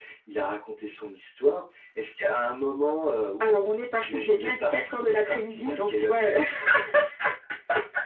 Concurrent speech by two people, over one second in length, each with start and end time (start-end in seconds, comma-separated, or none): 3.4-6.2